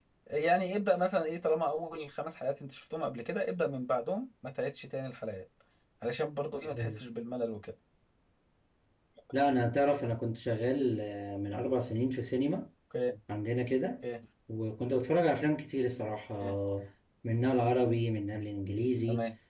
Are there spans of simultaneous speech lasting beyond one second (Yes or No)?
No